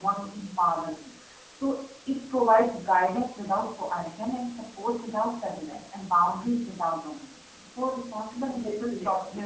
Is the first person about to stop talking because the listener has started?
No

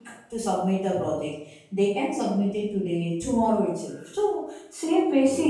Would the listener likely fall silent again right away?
Yes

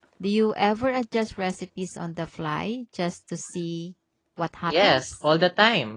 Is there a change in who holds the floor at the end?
Yes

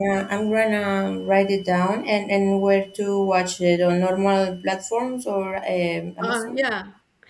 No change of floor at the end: No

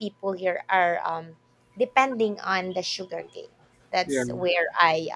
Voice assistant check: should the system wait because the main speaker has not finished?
Yes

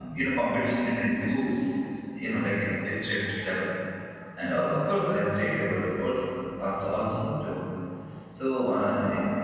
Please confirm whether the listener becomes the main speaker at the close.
No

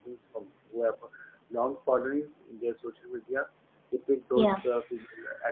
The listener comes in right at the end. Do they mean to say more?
No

